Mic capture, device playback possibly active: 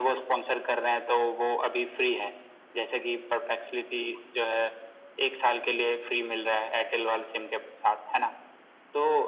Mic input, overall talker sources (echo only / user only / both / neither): echo only